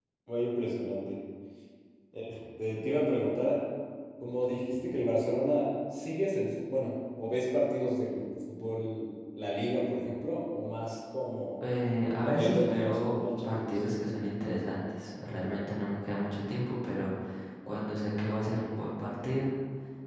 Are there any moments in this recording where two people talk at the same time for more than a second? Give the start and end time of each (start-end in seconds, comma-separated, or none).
12.2-13.7